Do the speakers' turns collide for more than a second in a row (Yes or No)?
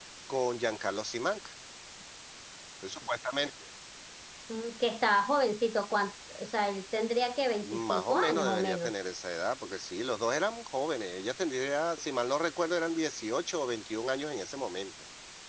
Yes